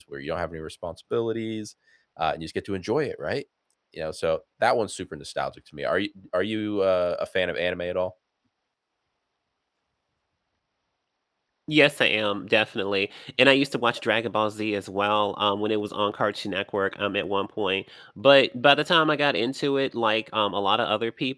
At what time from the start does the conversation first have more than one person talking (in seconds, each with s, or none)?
none